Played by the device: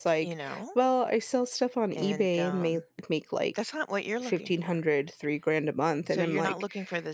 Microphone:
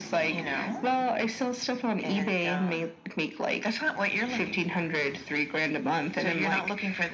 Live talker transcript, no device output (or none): none